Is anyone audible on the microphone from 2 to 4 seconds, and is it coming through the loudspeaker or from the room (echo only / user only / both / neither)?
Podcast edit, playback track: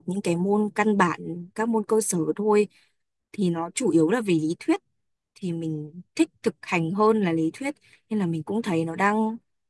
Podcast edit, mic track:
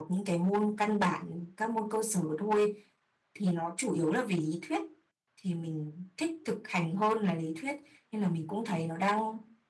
echo only